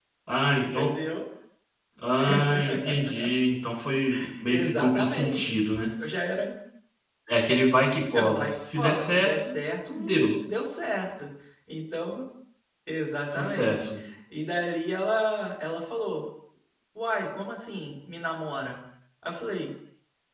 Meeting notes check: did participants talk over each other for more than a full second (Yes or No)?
Yes